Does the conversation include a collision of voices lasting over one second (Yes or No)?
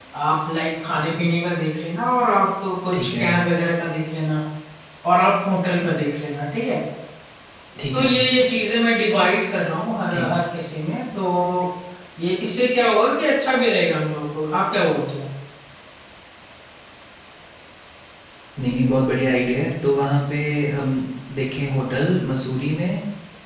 No